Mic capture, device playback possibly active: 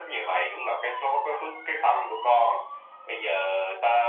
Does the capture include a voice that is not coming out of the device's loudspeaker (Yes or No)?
No